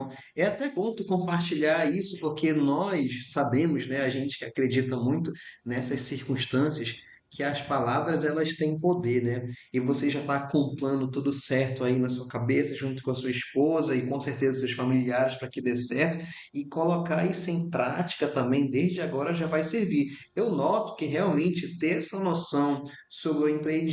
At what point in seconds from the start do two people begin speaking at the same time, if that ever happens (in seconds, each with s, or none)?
none